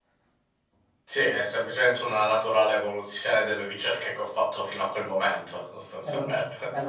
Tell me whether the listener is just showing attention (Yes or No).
No